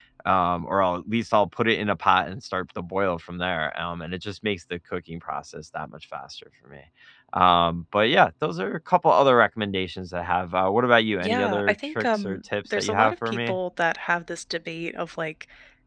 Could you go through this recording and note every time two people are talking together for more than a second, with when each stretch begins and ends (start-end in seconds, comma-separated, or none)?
11.2-13.6